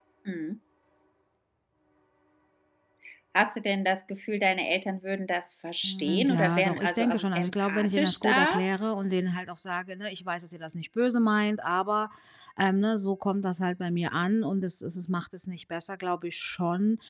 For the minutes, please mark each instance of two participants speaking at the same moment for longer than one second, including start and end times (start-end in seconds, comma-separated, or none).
5.8-8.6